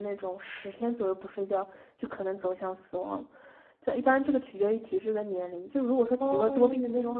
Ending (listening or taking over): listening